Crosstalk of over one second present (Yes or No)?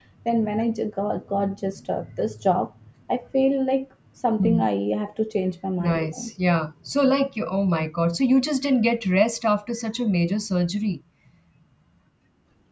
No